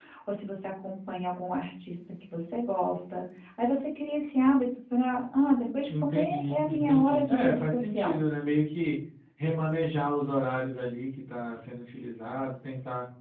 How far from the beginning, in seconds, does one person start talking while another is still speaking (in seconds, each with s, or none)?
5.9 s